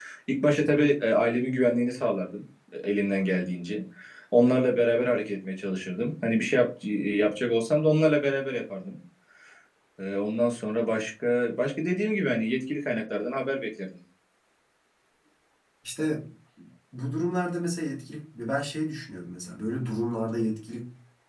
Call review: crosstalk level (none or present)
none